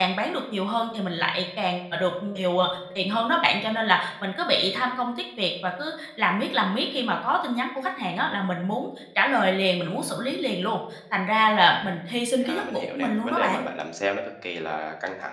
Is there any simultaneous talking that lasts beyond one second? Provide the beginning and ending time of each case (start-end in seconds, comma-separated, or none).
12.4-13.6